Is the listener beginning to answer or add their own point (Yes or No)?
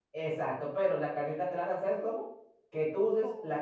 No